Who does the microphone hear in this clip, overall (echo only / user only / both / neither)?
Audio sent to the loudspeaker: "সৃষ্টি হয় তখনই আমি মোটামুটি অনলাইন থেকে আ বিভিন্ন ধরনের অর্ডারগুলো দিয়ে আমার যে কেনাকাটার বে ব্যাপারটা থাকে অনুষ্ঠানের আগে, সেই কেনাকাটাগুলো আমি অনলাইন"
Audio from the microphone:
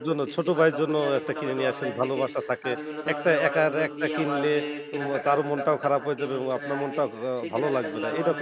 both